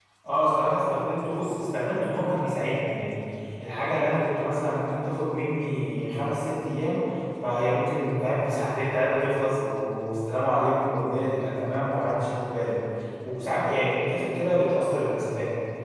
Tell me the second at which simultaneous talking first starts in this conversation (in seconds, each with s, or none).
none